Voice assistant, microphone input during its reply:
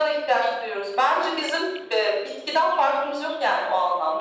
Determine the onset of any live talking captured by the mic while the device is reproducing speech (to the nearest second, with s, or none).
none